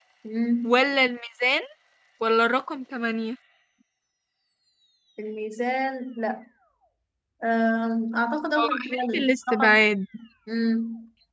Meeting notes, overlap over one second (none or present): present